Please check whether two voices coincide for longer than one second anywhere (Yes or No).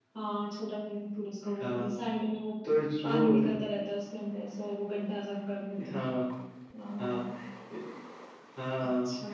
No